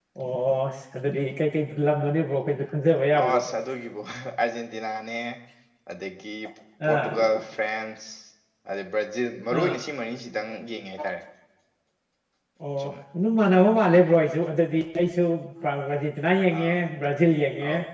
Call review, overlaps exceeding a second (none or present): none